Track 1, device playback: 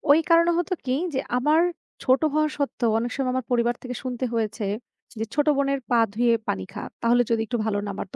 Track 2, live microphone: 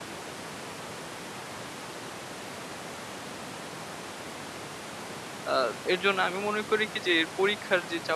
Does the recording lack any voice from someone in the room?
No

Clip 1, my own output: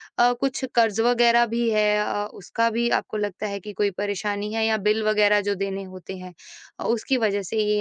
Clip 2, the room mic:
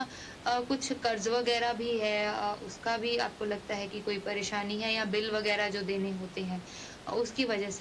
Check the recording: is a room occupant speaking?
No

